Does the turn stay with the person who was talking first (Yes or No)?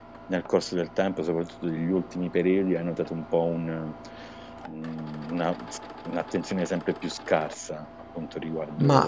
No